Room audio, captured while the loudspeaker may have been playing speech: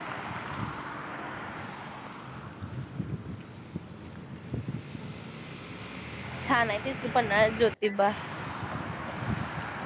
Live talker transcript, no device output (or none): छान आहे तेच की पन्हाळा ज्योतिबा